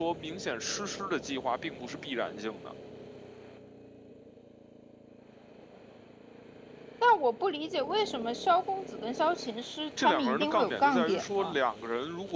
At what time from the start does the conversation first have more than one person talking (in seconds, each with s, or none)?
10.0 s